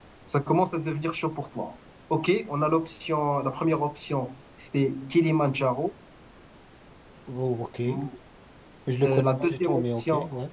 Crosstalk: present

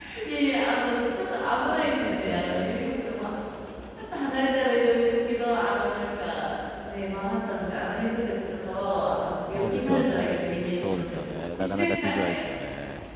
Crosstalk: present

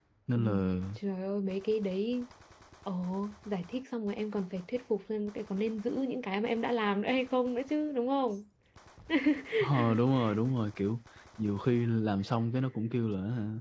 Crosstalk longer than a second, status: none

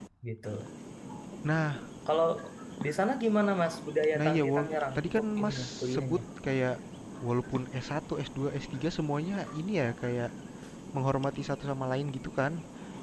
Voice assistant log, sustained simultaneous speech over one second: present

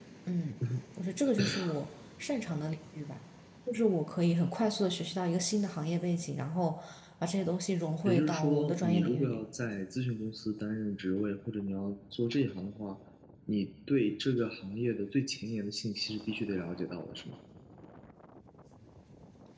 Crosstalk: present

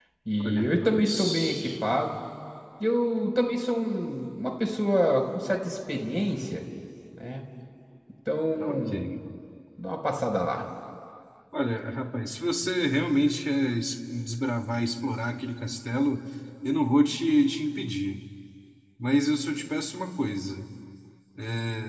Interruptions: present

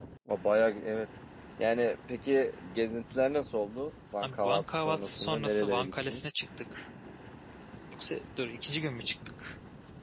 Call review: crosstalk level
present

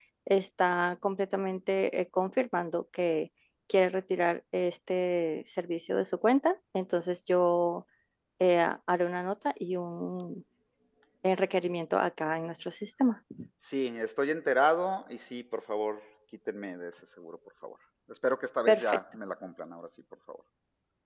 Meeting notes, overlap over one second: none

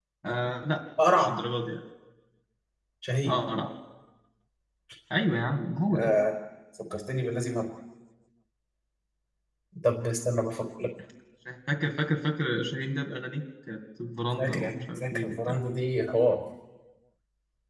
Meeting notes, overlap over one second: present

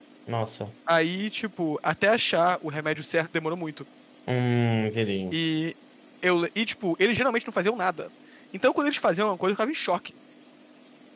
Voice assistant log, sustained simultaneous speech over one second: none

